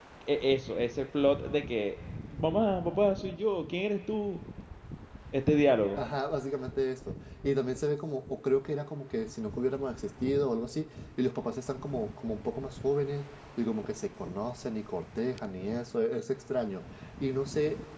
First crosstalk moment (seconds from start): none

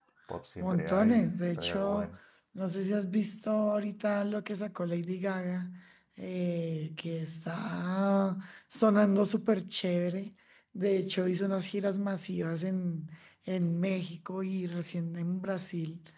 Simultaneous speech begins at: 1 s

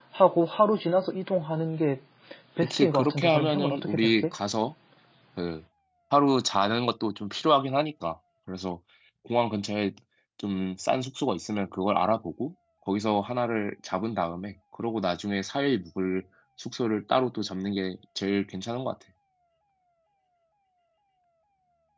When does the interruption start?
3 s

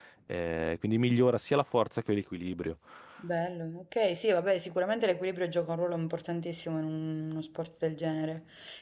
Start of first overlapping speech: none

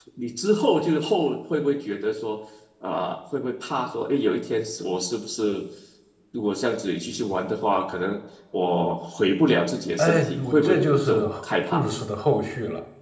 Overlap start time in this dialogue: 10 s

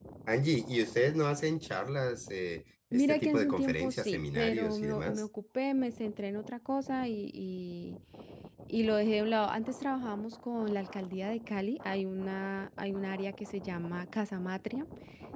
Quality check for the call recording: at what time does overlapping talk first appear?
3 s

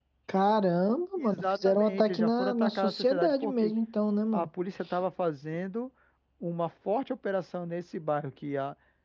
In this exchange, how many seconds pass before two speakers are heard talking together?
1 s

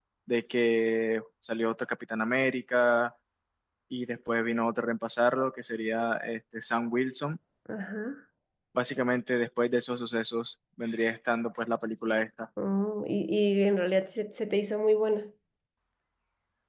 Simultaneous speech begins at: none

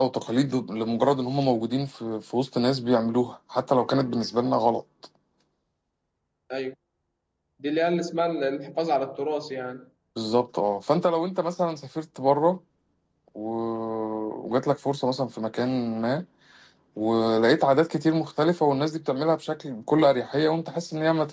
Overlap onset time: none

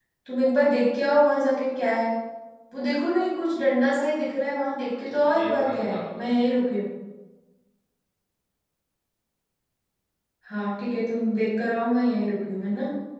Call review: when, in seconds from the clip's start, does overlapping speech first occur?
5 s

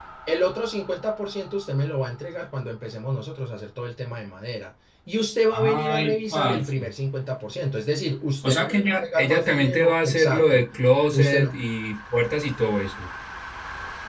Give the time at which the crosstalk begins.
6 s

